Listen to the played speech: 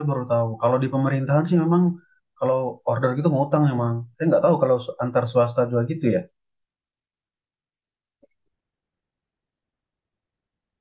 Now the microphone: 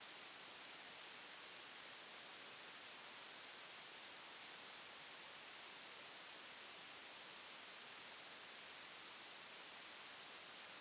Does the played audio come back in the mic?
No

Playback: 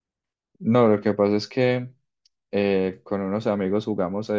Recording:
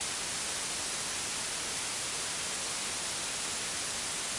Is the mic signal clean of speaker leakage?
Yes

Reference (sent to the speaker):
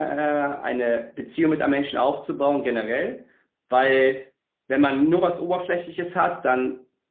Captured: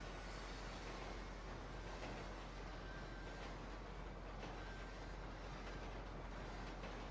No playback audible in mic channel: Yes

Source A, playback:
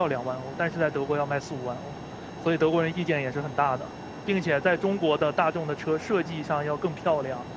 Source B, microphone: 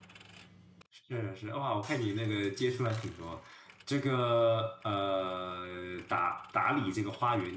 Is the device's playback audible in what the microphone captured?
No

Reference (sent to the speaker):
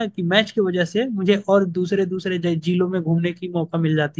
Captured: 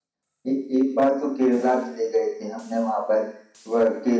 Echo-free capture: Yes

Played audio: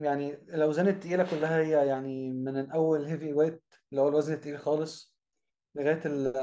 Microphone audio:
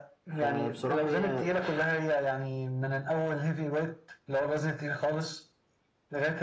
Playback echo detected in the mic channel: Yes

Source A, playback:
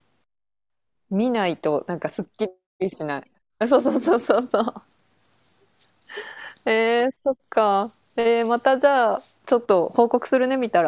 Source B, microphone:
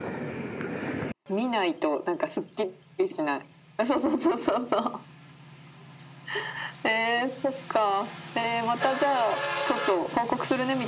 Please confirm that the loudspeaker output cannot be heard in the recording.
No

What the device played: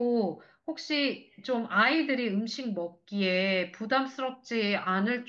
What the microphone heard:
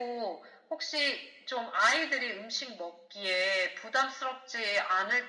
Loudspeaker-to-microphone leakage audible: Yes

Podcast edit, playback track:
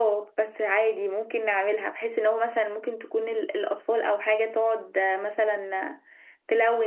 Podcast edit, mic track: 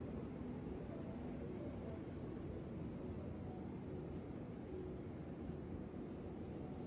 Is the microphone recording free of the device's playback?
Yes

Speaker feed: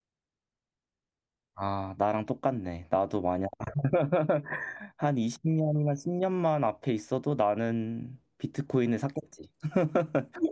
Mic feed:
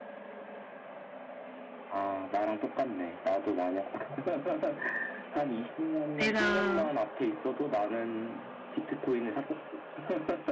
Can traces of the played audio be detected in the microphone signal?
Yes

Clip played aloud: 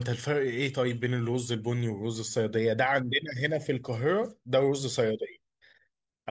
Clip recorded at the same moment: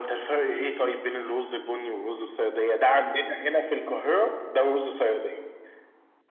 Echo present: Yes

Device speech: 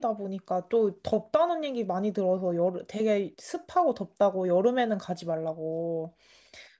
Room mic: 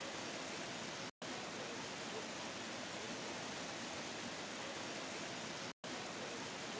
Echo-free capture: Yes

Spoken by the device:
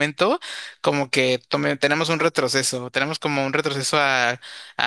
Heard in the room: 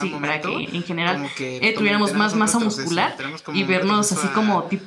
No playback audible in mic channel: No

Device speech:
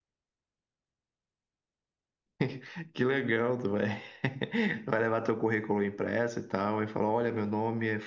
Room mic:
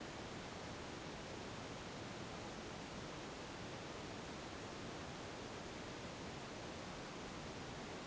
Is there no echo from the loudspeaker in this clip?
Yes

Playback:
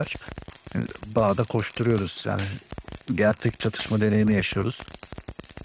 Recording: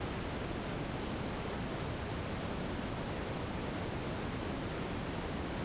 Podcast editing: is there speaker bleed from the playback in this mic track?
No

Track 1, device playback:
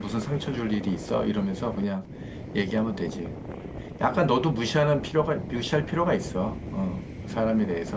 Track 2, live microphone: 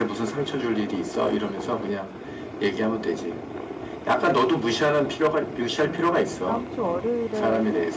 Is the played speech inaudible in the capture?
No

